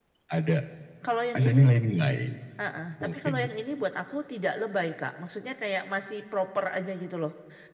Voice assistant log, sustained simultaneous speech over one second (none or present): none